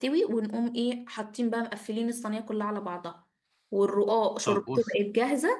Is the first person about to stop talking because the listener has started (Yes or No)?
No